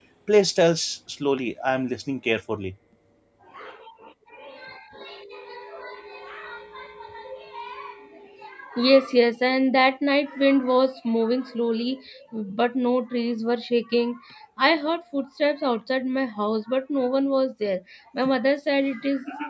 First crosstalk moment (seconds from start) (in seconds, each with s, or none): none